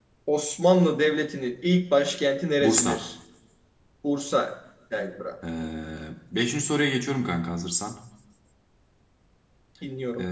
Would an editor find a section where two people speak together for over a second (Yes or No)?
No